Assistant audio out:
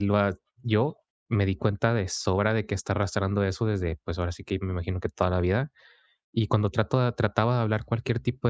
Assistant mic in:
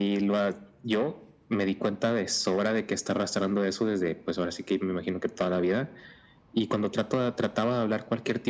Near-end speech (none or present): none